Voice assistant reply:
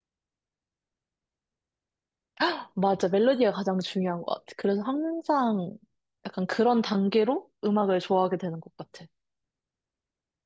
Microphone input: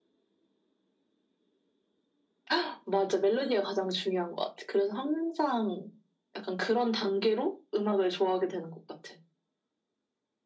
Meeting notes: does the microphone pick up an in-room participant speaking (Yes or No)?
No